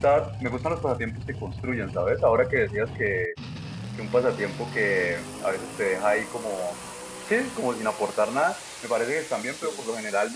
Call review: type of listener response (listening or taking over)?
listening